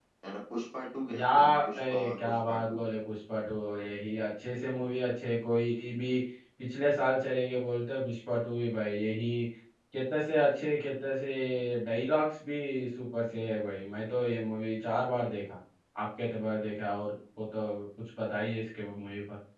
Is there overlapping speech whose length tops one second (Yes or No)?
Yes